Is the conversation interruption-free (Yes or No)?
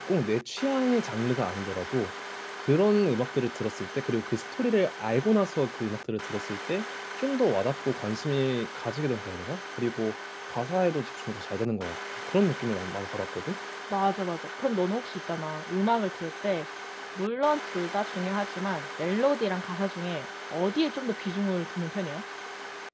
Yes